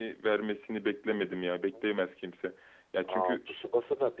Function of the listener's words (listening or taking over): taking over